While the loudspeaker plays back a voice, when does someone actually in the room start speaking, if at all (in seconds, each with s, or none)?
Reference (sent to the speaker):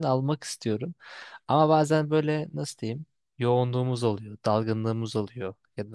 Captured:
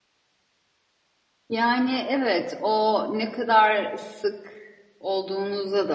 1.5 s